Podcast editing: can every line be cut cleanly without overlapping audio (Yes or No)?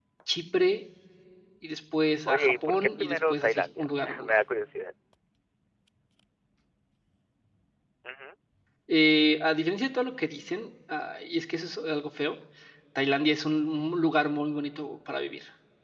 No